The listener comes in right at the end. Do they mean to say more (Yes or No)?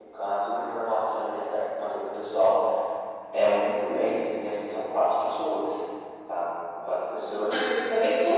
Yes